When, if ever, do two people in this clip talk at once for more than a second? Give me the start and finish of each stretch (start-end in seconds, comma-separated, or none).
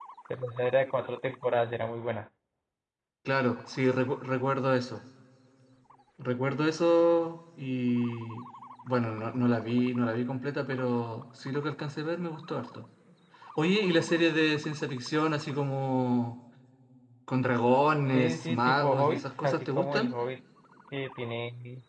18.1-20.1